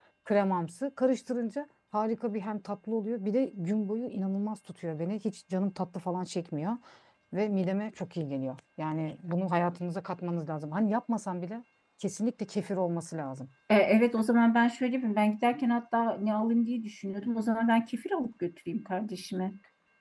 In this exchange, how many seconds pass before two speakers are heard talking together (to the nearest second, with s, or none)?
none